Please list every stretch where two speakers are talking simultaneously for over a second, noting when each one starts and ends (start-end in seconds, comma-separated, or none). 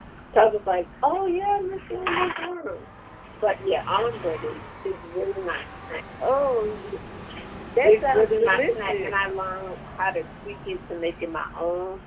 7.8-9.2